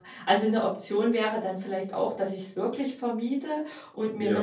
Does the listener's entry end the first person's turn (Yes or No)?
No